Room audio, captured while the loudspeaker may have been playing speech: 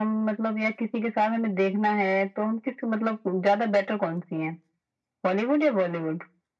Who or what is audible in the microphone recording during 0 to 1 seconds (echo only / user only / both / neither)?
echo only